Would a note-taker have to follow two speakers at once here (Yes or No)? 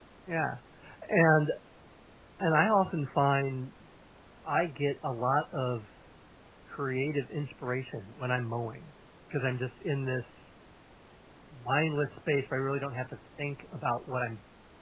No